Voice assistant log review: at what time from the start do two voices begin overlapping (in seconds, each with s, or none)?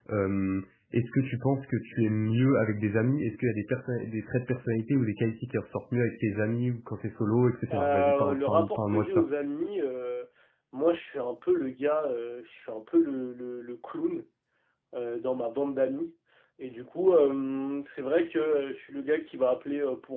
7.7 s